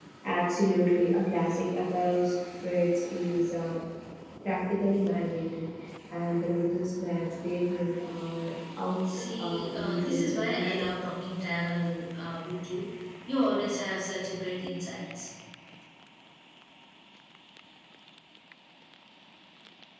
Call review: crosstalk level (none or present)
present